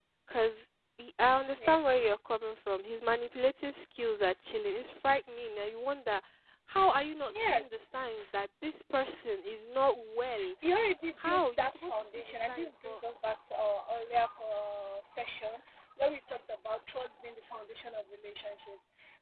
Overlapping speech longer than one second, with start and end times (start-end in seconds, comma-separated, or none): 11.2-13.0